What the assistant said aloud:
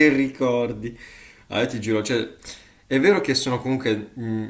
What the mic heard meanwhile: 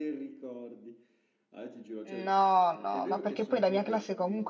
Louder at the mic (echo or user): user